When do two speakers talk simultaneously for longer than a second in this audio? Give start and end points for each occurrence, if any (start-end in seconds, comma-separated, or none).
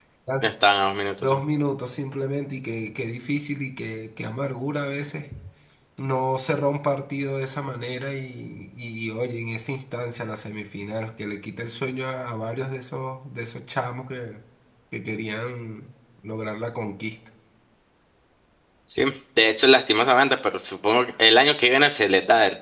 none